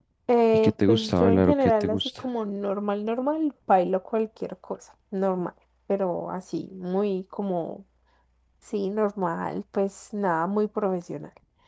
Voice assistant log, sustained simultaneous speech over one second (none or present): present